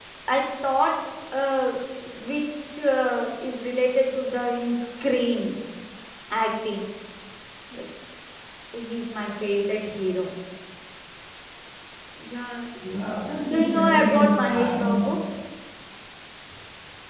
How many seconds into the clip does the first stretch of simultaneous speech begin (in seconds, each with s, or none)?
13.5 s